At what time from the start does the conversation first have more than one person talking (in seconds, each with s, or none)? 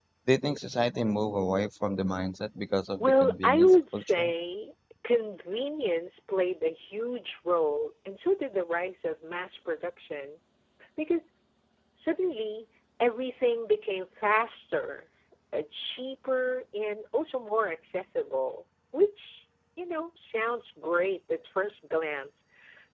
3.0 s